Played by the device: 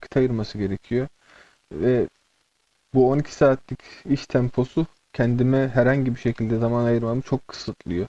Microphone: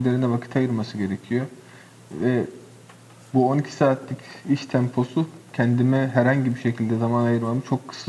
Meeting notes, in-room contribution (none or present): none